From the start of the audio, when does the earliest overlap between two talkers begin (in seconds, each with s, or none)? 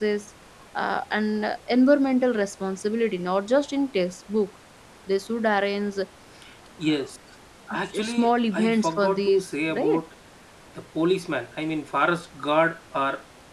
8.0 s